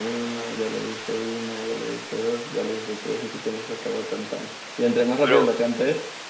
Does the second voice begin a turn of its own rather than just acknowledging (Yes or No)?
No